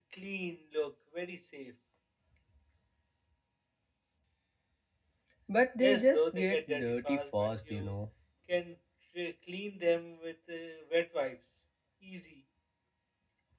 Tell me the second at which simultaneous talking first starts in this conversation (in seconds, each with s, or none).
5.8 s